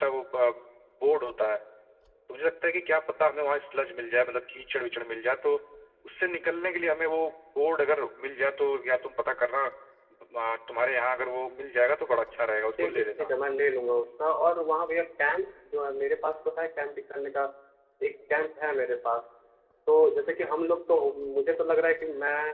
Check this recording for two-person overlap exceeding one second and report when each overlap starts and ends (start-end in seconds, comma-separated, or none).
none